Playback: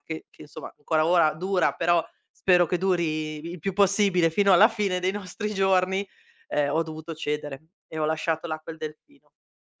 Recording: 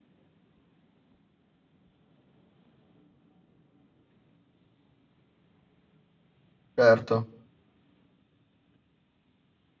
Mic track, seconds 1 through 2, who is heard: neither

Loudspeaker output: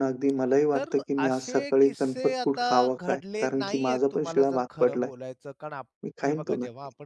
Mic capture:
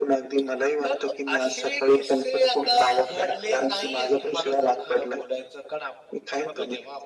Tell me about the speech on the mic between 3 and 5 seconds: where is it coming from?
echo only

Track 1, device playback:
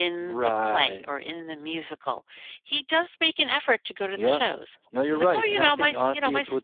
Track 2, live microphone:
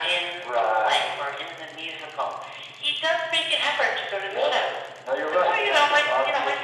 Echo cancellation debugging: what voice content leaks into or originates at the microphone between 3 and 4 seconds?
echo only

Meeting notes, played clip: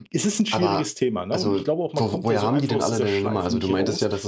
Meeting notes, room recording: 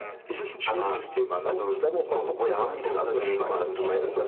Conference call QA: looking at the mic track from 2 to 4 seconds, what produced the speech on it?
both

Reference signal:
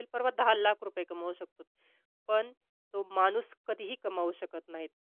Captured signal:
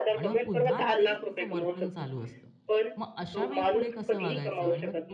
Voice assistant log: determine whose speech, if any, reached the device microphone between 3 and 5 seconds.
both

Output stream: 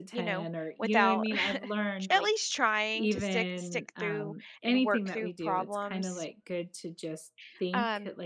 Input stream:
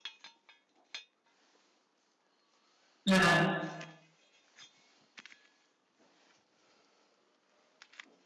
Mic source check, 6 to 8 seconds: neither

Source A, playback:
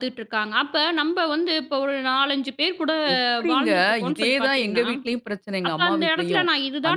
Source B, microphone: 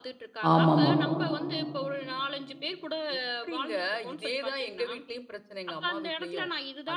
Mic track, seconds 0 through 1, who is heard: both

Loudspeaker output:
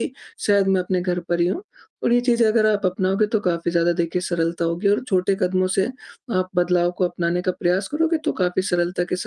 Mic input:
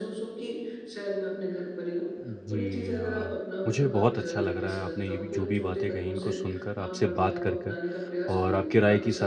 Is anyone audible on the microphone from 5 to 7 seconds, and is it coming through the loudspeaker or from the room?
both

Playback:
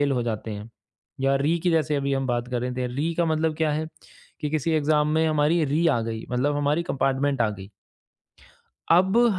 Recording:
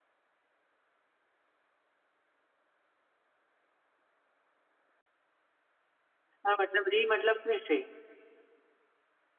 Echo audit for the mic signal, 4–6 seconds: neither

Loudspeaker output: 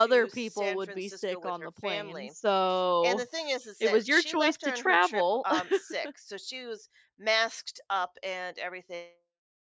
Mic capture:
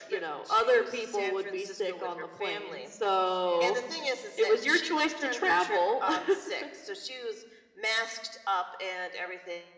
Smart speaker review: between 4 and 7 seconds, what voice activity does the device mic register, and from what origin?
echo only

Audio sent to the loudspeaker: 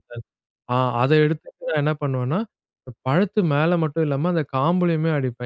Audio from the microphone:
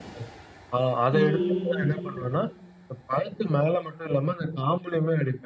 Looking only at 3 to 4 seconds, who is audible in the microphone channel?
echo only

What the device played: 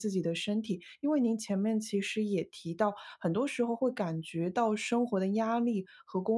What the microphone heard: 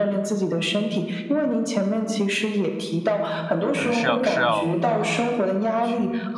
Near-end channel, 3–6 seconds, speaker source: both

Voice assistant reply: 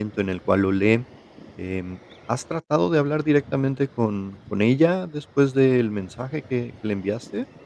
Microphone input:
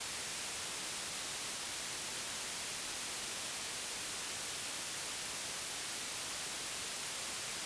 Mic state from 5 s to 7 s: neither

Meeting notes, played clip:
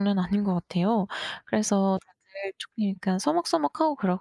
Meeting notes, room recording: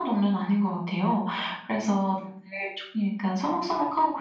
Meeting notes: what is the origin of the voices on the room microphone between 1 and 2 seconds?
echo only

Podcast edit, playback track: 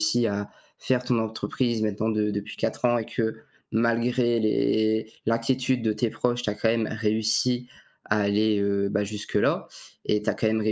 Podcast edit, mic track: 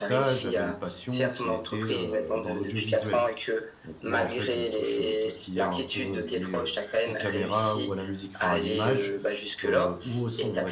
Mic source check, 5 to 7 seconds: both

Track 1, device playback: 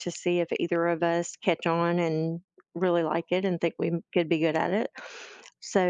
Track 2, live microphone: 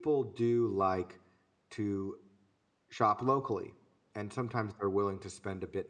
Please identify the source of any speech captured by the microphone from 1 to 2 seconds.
user only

